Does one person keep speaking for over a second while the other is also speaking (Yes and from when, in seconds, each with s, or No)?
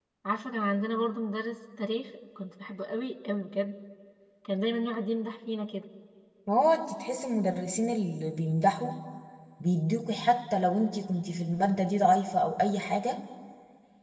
No